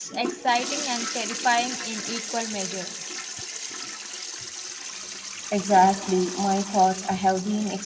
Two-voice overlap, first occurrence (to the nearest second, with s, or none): none